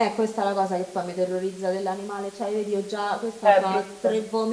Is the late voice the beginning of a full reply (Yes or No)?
No